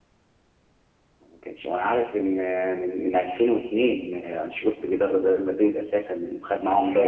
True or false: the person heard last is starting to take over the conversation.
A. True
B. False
A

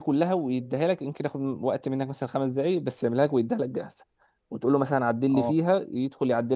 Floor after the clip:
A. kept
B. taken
A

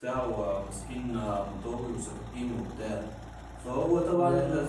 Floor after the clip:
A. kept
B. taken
A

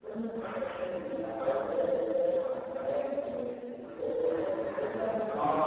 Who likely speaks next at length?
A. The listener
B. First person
A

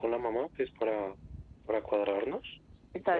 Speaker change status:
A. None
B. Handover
A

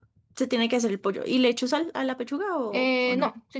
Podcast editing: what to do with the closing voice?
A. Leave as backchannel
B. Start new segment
B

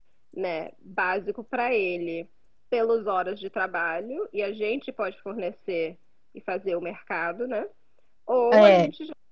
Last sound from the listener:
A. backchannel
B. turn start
A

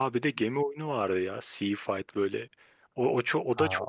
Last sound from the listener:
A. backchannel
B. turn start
B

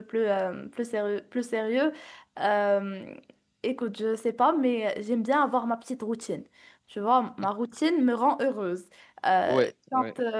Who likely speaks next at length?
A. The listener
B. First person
B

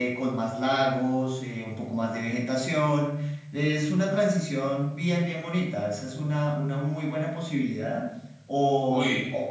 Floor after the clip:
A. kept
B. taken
A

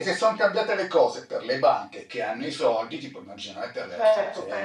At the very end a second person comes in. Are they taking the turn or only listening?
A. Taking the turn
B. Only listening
A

